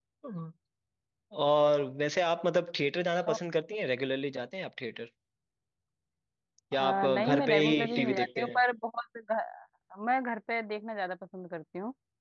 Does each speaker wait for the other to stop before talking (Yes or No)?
No